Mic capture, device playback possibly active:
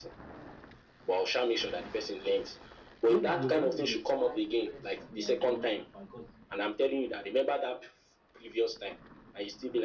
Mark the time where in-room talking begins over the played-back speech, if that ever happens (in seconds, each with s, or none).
3.0 s